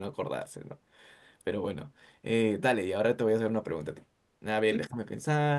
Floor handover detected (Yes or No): No